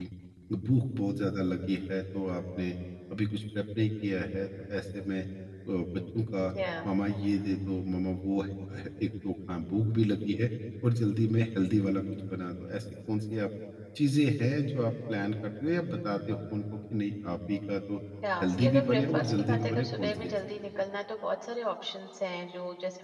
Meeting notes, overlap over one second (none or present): present